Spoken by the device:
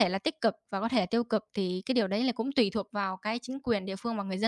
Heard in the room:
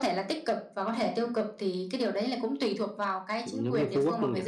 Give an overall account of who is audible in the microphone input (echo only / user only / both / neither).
both